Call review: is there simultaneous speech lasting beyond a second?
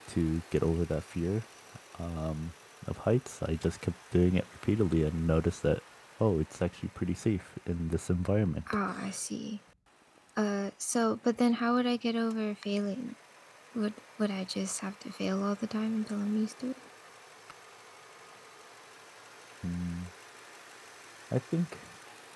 No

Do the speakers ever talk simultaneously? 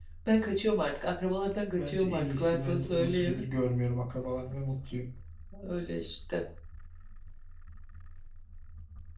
Yes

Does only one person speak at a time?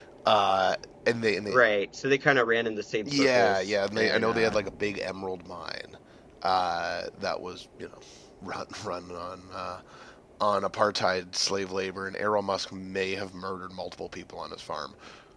No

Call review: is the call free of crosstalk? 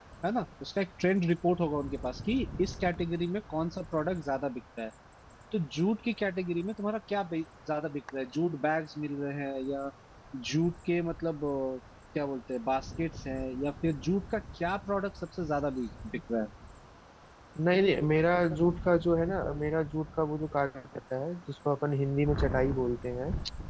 Yes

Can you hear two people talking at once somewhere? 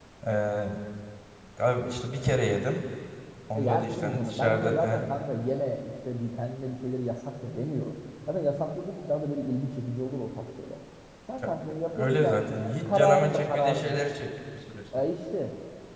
Yes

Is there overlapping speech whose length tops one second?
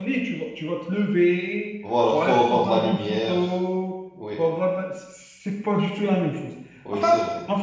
Yes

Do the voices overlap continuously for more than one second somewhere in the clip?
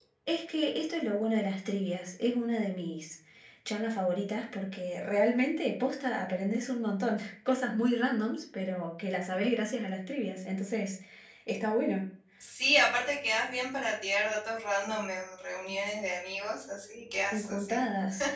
No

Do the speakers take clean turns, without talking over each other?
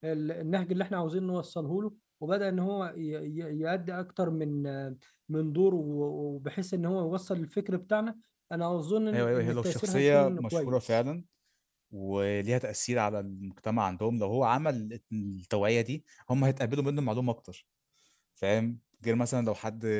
No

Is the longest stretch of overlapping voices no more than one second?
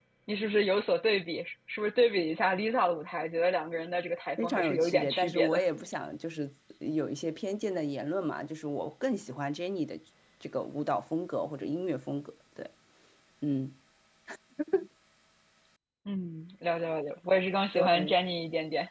No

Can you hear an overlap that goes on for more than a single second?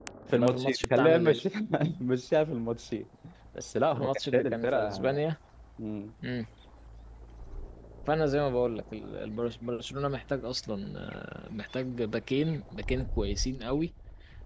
Yes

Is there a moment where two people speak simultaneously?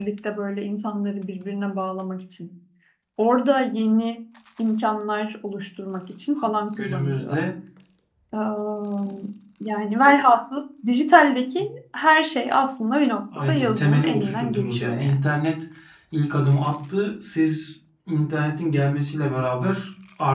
Yes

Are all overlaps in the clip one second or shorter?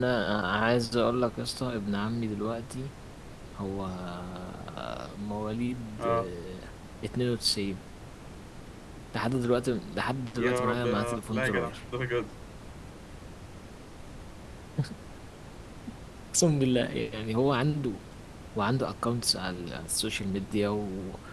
No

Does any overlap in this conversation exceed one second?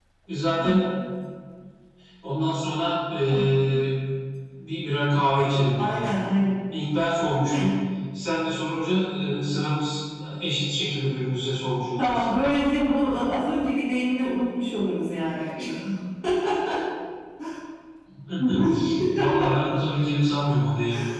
No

